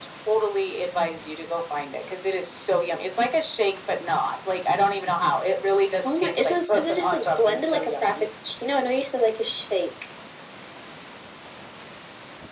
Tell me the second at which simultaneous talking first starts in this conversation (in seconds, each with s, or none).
6.0 s